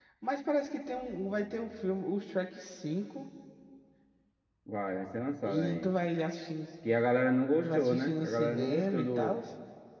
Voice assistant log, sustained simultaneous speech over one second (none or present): present